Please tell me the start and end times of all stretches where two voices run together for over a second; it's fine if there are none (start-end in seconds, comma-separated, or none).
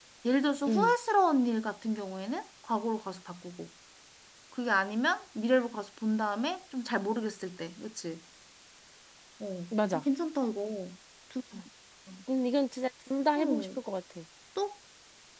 none